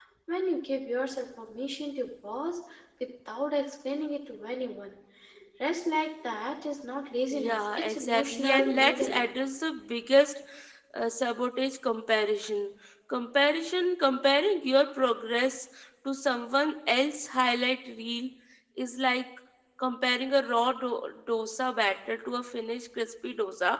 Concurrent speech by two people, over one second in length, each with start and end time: 7.3-9.3

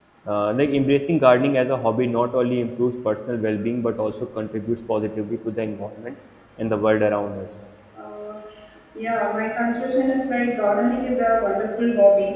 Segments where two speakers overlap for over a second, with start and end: none

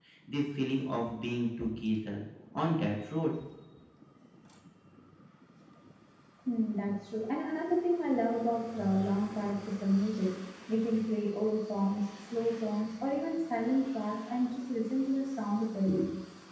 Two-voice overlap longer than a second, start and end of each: none

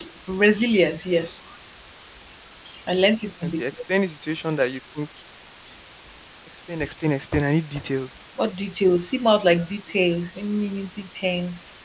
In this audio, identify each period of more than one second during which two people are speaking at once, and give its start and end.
none

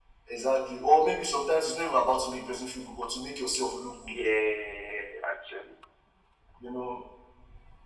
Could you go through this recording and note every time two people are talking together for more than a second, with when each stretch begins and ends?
none

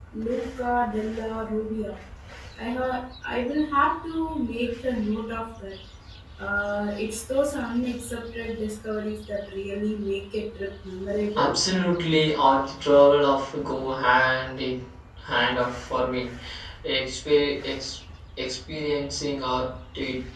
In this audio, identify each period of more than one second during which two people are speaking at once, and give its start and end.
none

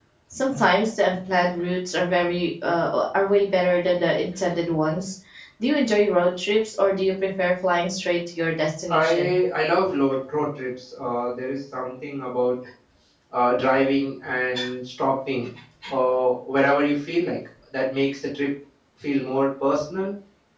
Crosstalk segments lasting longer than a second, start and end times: none

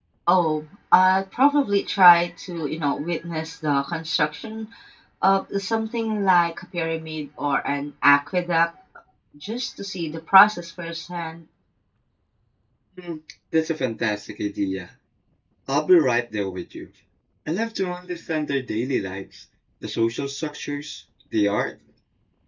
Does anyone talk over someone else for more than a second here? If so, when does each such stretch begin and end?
none

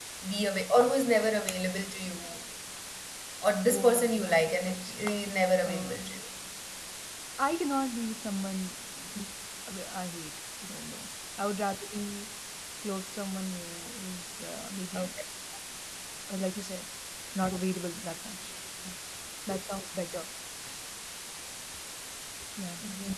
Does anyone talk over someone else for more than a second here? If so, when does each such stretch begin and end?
3.7-4.9

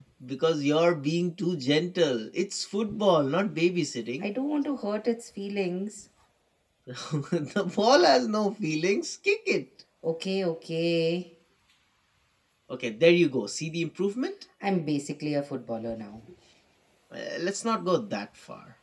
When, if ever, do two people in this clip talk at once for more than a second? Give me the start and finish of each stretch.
none

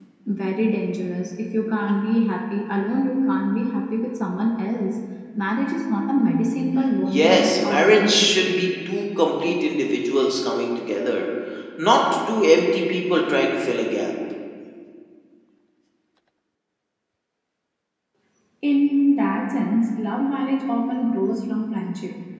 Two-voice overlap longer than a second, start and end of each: 7.0-8.7

